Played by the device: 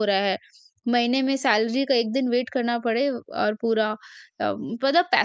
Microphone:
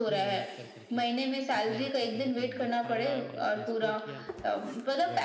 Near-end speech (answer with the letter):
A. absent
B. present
B